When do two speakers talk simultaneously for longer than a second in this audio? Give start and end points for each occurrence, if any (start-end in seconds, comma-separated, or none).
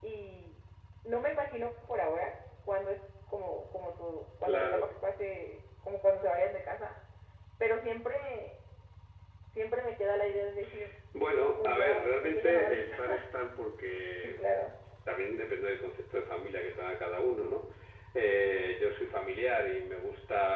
11.6-13.2